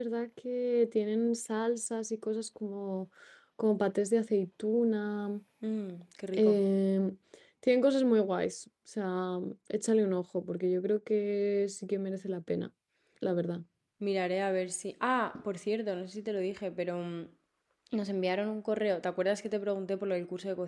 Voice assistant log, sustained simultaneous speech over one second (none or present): none